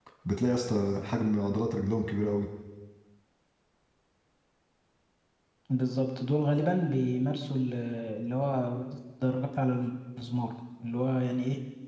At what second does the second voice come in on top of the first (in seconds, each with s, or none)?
none